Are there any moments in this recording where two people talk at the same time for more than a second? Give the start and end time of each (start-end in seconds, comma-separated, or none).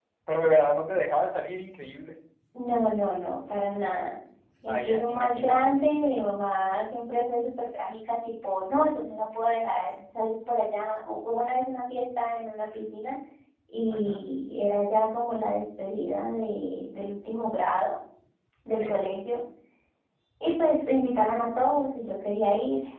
4.6-5.9